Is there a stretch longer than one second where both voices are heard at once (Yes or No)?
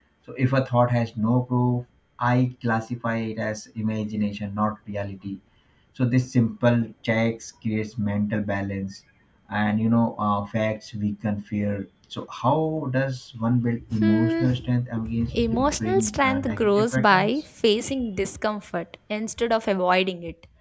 Yes